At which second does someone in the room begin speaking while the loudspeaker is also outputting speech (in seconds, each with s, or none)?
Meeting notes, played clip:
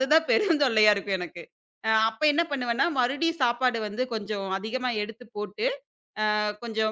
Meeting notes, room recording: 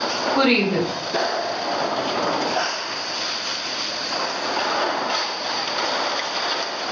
0.3 s